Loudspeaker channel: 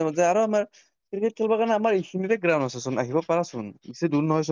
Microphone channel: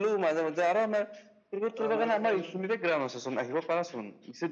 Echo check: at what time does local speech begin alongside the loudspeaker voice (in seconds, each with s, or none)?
1.8 s